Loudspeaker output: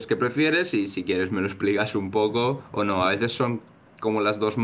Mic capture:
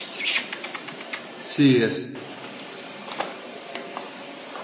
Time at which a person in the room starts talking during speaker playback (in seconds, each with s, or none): 1.3 s